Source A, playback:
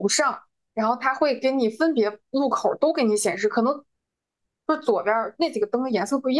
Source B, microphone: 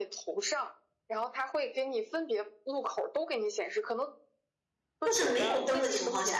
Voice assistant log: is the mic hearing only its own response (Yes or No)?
No